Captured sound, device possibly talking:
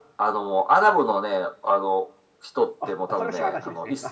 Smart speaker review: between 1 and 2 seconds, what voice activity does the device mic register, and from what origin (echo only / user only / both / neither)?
echo only